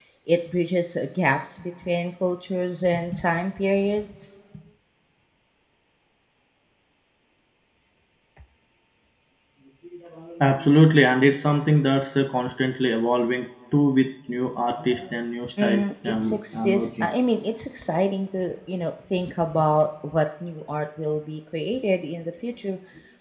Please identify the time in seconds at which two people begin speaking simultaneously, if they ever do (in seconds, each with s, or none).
15.6 s